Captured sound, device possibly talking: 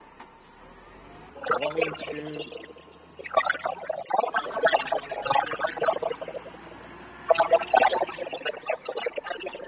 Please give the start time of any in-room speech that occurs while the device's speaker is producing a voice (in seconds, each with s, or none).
1.5 s